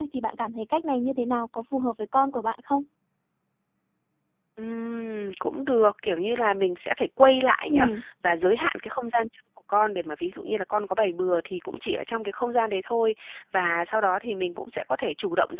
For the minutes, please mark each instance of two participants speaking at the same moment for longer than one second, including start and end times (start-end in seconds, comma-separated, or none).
none